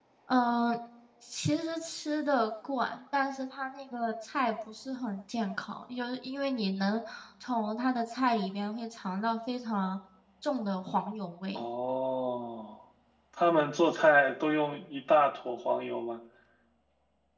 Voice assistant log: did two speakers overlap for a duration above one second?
No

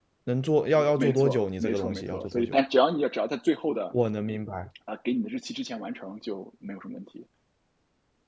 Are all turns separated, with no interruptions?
No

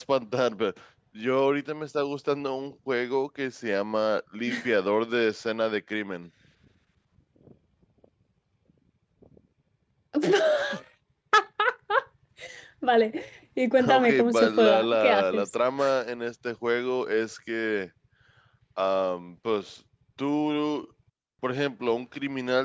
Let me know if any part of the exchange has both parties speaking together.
Yes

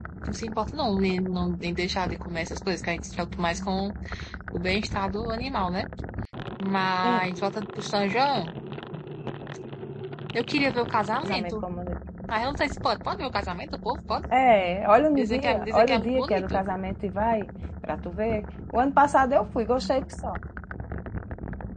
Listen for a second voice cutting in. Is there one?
Yes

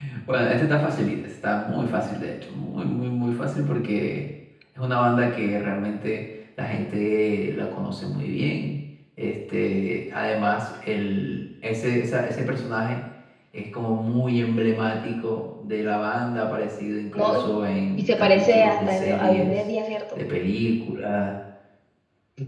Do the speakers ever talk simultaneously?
Yes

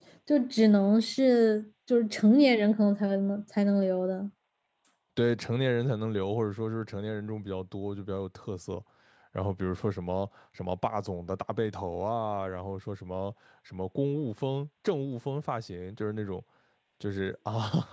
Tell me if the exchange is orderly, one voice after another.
Yes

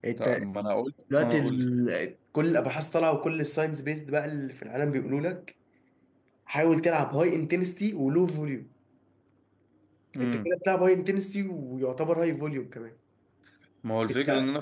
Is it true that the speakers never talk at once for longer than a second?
Yes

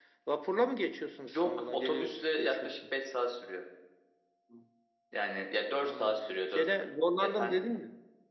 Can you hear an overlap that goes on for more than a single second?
Yes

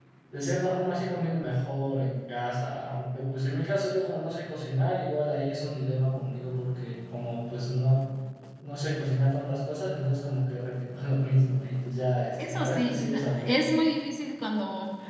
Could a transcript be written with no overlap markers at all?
No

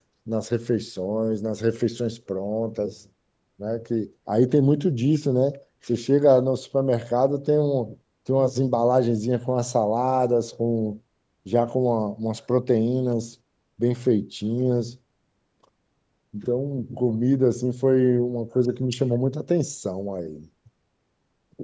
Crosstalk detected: No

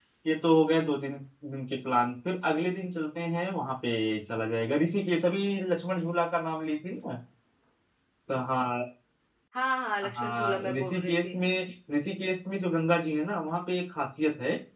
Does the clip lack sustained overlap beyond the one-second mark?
No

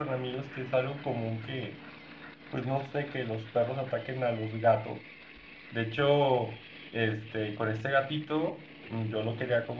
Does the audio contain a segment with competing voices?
No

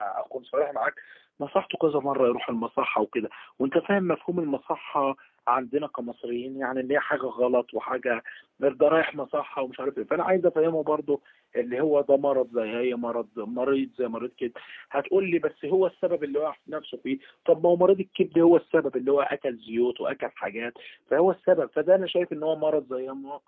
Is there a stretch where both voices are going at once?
No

